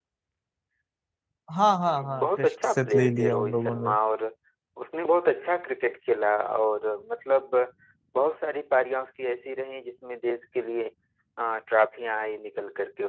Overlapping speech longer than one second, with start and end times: 1.9-3.9

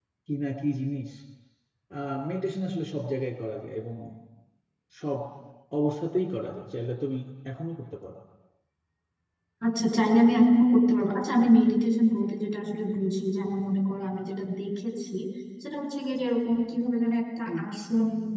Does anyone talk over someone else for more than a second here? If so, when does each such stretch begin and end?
none

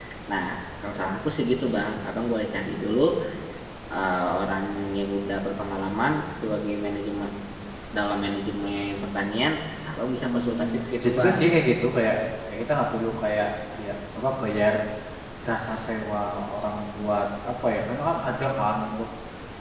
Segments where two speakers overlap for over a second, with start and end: 10.2-11.6

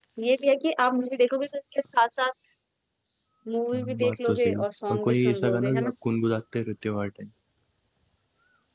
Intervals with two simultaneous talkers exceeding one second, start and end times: 3.7-5.9

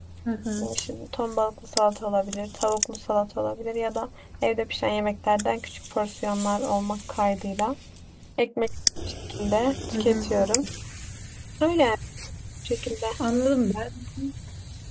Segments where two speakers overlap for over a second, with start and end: none

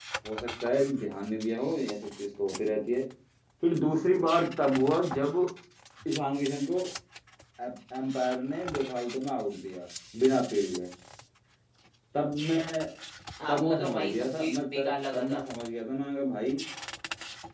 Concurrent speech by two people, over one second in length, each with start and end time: 13.5-15.4

